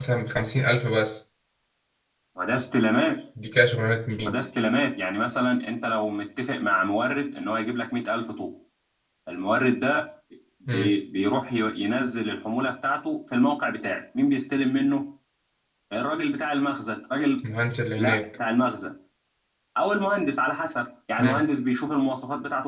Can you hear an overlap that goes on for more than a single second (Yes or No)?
No